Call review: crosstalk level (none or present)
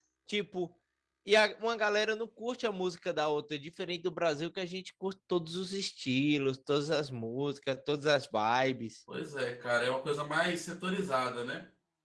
none